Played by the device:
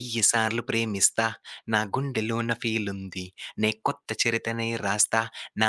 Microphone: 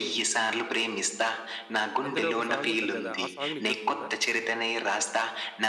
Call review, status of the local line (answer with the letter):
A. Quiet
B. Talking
B